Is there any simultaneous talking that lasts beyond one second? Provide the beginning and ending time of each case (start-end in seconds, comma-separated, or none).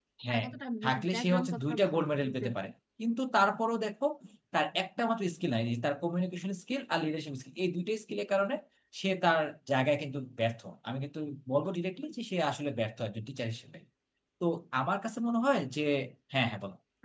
1.1-2.7